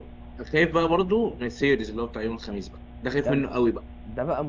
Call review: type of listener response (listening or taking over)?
taking over